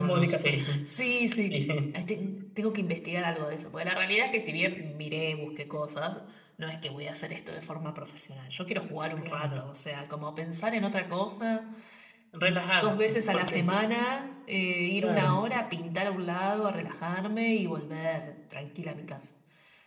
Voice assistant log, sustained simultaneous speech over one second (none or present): present